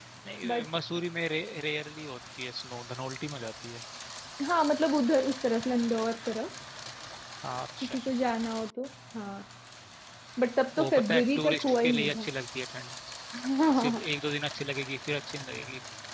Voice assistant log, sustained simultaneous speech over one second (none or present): present